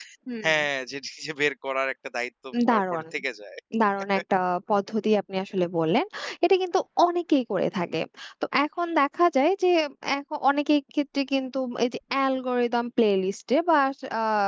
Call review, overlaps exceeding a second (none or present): none